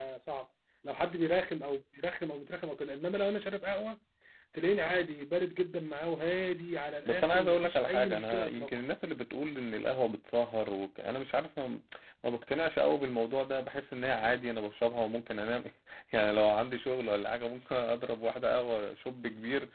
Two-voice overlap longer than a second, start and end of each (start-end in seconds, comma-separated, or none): 7.0-8.7